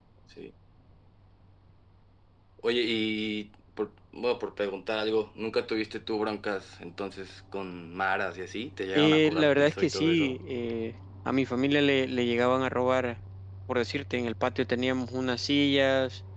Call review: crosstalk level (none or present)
present